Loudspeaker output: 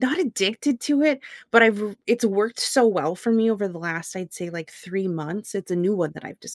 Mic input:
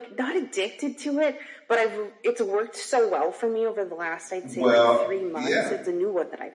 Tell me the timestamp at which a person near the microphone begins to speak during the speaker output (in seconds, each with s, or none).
4.4 s